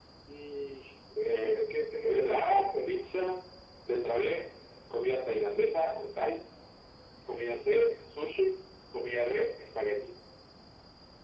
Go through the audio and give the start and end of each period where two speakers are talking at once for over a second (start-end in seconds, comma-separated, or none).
1.2-2.9